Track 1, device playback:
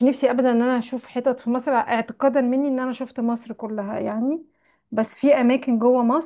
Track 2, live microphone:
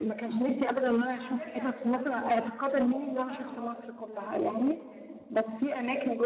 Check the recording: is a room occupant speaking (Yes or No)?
Yes